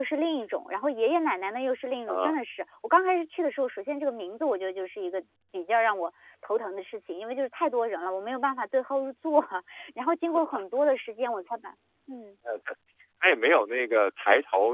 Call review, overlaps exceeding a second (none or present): none